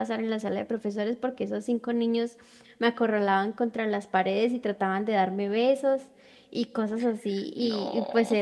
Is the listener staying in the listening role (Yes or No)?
Yes